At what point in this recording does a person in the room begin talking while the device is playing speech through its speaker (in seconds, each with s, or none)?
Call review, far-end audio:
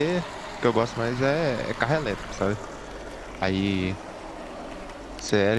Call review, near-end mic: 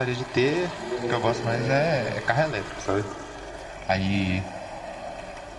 0.7 s